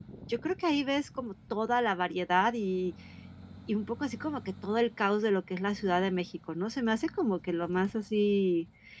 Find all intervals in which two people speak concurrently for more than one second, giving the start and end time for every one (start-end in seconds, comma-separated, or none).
none